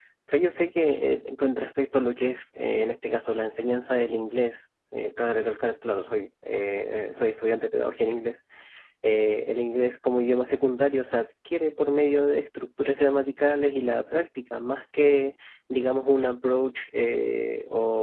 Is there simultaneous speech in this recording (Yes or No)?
No